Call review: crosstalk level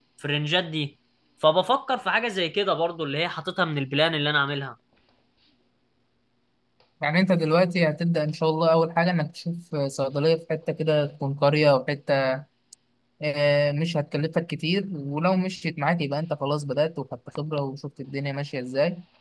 none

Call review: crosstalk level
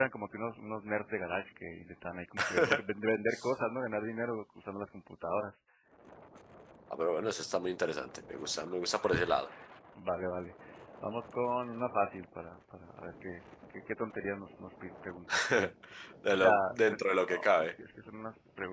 present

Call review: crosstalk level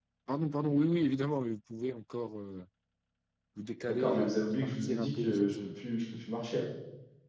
present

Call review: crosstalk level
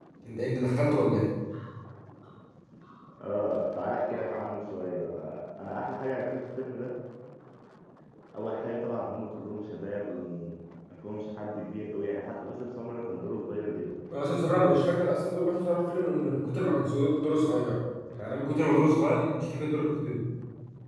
none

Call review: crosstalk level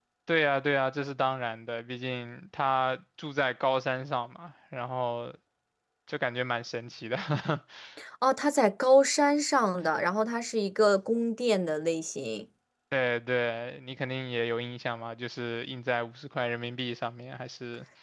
none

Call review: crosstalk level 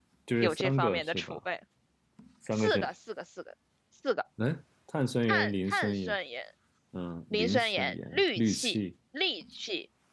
present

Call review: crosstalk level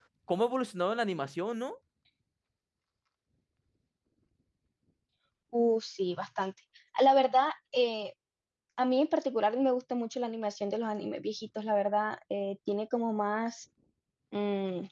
none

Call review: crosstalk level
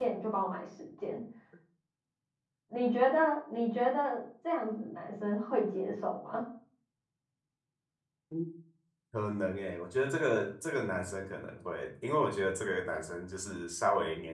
none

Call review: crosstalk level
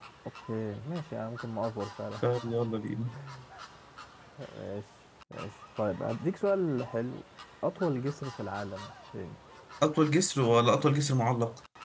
none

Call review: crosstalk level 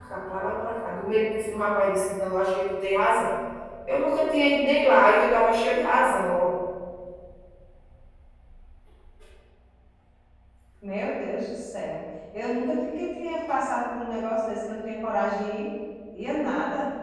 none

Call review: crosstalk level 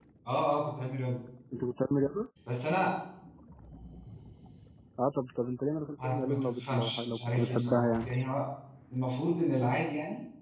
present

